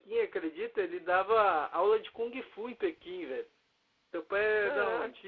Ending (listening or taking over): taking over